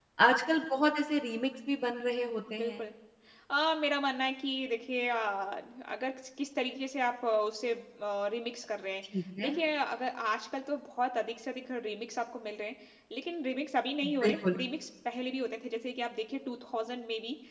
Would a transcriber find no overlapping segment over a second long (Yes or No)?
Yes